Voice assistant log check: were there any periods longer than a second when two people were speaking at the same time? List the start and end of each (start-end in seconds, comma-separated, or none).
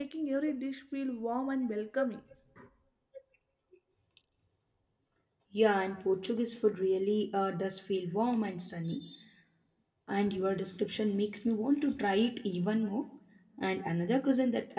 none